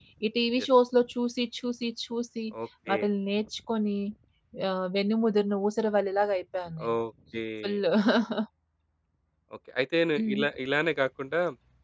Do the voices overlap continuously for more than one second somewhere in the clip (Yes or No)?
No